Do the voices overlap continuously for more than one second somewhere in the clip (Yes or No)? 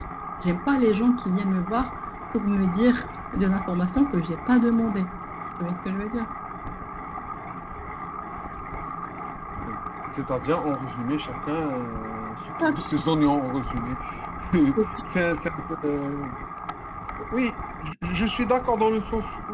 No